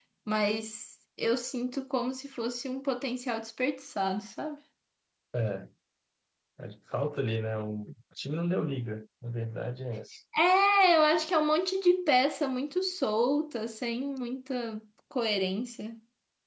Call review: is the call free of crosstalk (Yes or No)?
Yes